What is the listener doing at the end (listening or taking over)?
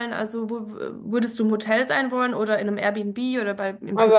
taking over